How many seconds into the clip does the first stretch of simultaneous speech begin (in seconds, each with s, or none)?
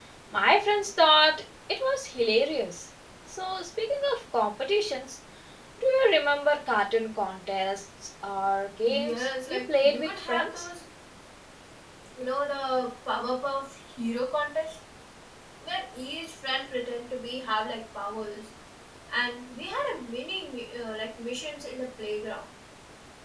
8.9 s